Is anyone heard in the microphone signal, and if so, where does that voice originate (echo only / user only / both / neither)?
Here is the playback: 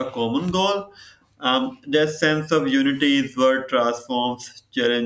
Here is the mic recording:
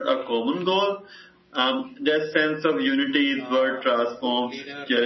both